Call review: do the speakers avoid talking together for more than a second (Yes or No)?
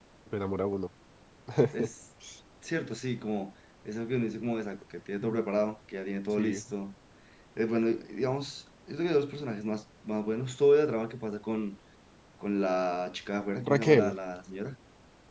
Yes